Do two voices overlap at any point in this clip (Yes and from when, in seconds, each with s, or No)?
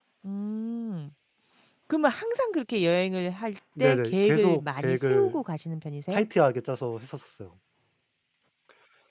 Yes, from 3.8 s